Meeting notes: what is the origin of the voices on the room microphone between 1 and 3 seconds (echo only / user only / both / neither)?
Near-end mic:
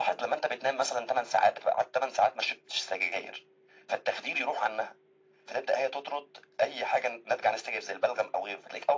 echo only